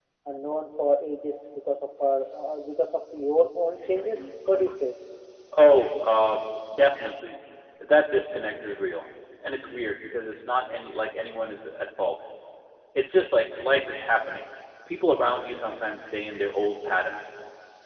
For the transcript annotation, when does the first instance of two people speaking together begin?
none

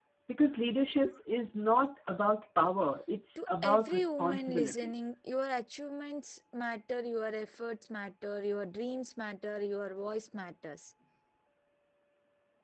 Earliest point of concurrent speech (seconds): 3.4 s

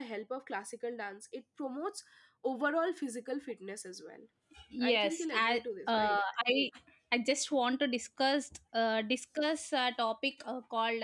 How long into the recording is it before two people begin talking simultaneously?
4.9 s

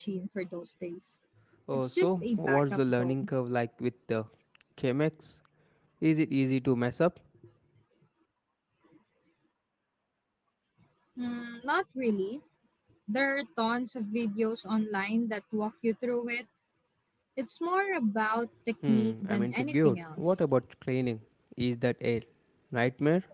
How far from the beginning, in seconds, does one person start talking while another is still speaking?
1.7 s

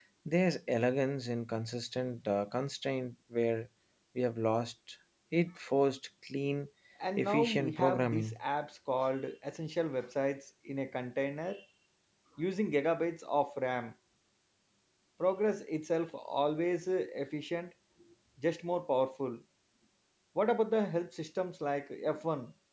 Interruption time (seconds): 7.2 s

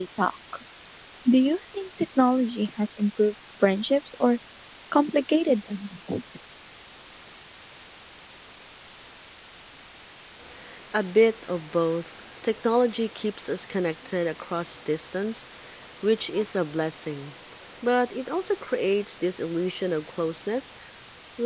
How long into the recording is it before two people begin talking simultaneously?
none

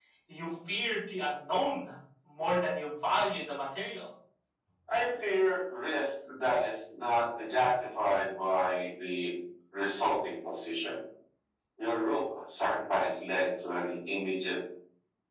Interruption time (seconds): none

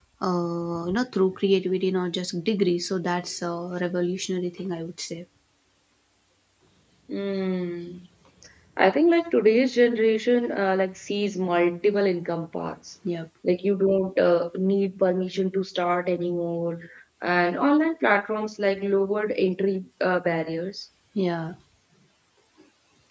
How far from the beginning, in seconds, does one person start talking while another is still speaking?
none

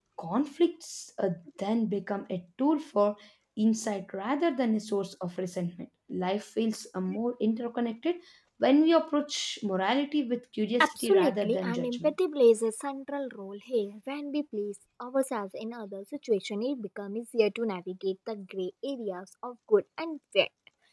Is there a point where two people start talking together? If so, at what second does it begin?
10.8 s

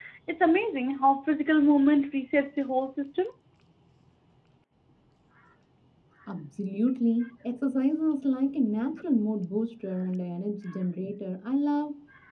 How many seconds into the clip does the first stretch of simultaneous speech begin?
none

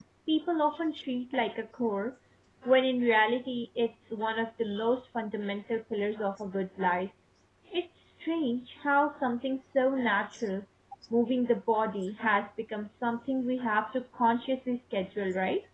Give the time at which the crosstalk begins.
none

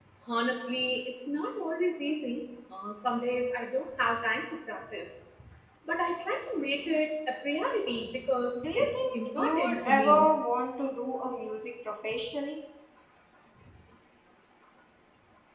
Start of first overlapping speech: 8.6 s

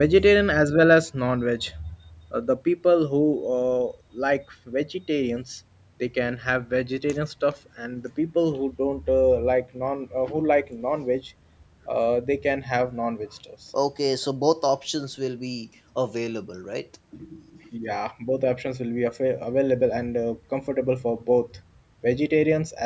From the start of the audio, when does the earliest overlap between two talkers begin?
none

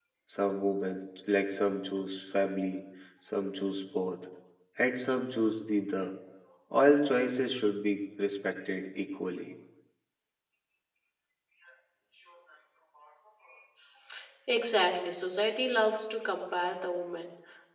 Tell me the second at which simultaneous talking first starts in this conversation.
none

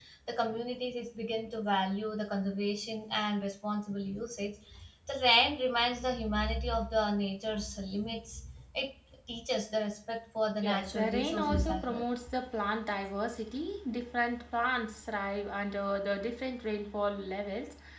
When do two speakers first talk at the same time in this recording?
10.6 s

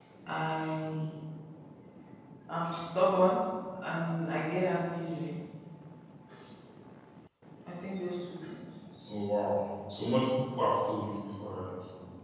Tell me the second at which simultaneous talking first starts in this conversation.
none

